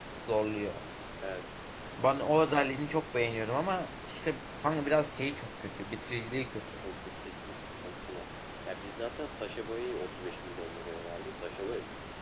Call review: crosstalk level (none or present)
none